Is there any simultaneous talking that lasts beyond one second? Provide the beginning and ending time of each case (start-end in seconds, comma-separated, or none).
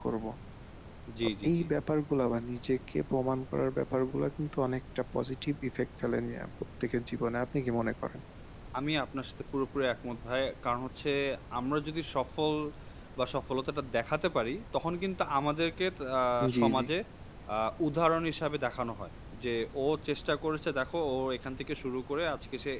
none